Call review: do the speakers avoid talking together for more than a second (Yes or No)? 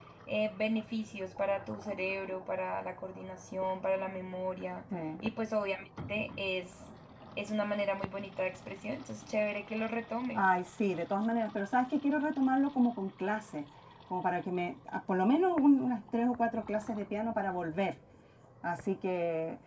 Yes